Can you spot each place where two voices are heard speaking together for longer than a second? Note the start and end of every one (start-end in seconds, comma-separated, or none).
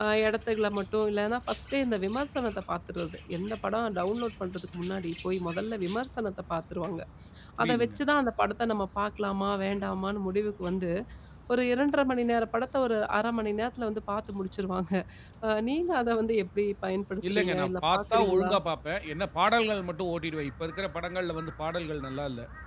17.3-18.5